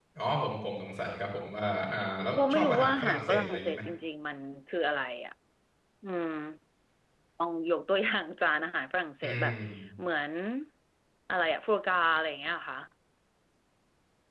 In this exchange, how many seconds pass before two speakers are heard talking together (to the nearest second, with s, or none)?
2 s